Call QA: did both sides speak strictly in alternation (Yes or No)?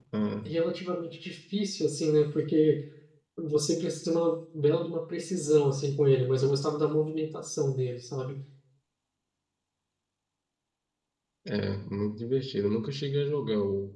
Yes